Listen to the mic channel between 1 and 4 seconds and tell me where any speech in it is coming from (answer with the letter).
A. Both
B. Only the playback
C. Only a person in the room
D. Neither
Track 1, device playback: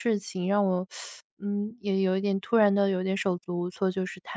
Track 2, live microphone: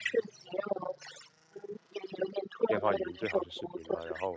A